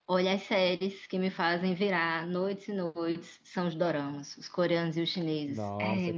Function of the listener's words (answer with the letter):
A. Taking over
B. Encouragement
A